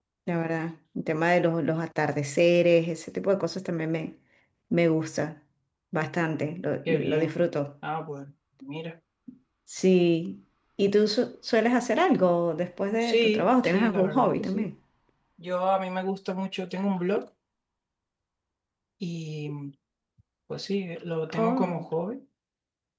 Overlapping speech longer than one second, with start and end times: 13.0-14.7

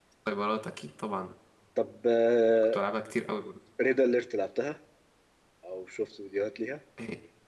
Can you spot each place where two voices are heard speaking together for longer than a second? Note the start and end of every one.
none

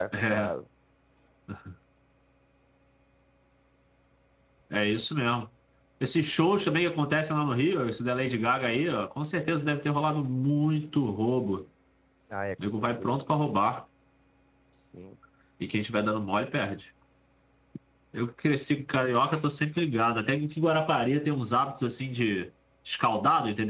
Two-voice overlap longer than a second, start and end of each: none

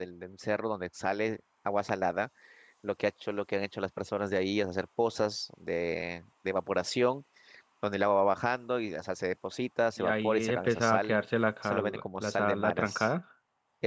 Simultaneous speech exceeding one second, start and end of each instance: 10.0-11.2, 11.6-13.1

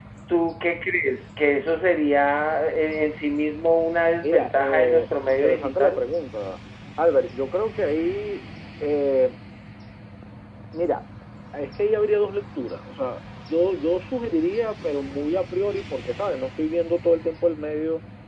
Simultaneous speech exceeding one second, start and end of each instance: 4.2-6.0

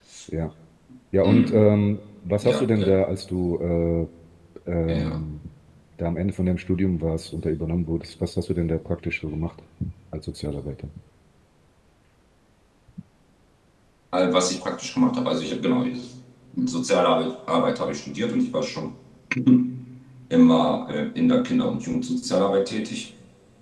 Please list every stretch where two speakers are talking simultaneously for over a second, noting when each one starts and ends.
none

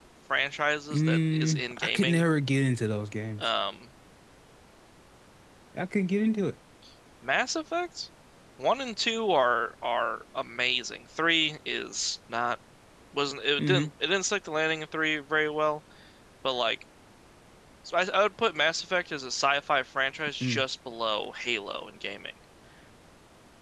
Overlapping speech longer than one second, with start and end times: 0.9-2.2

